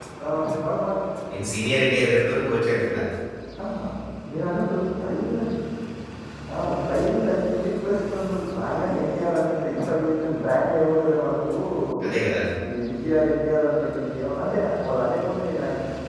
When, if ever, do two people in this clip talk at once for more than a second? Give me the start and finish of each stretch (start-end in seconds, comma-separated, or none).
none